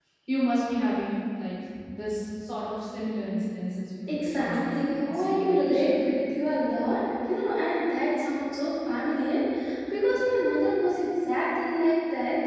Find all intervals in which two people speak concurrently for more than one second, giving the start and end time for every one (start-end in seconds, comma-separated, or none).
4.1-5.9